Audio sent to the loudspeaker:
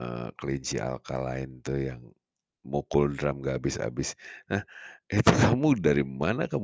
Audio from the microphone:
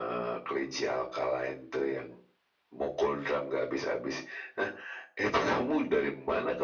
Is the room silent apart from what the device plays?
Yes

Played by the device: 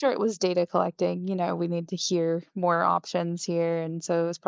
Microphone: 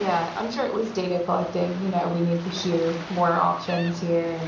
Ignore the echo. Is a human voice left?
No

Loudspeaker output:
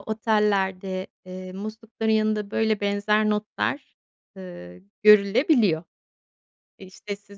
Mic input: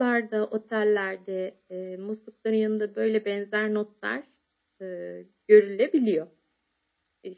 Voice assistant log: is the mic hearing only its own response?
Yes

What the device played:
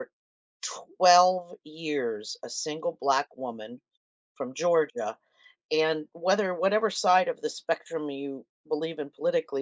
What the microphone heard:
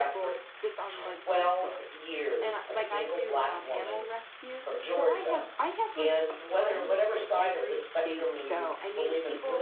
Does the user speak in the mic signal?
Yes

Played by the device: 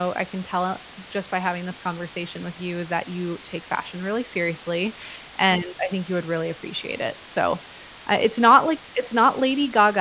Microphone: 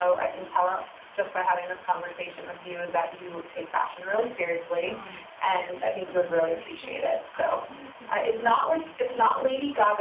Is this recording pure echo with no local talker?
No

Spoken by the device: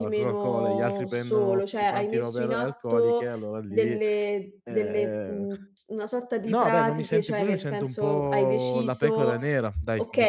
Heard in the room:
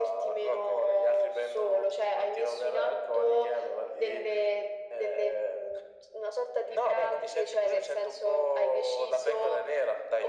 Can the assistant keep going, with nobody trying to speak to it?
Yes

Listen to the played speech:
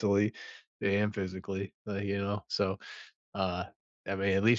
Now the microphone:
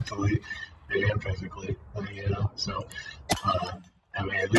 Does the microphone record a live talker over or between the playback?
No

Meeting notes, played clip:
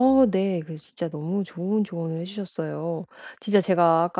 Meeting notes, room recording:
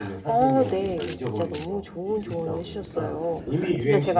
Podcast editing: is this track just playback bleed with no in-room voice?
No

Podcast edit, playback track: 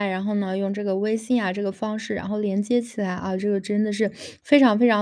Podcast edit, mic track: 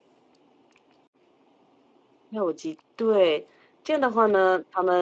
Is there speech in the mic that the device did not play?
Yes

